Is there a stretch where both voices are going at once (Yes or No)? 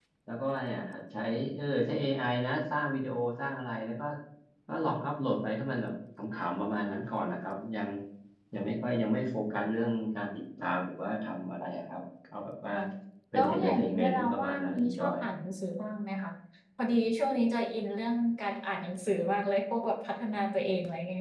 Yes